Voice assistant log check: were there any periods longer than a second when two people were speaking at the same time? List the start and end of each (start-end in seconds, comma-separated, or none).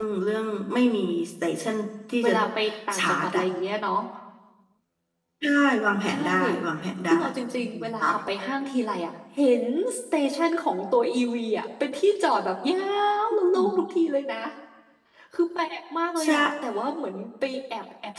none